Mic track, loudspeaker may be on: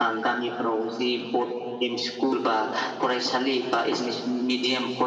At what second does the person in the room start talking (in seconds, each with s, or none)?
none